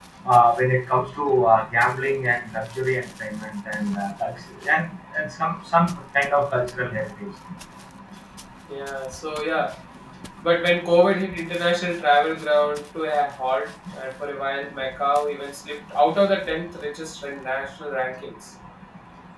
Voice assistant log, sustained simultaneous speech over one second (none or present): none